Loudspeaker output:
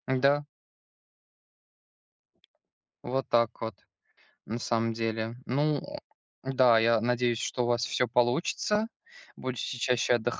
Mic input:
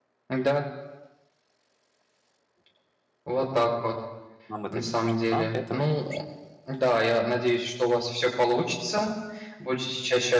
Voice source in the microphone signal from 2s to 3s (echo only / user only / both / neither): neither